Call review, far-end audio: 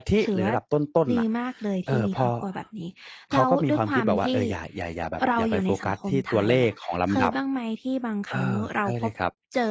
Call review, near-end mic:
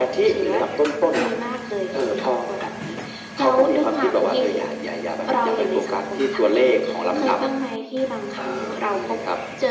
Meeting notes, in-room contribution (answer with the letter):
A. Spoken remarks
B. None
B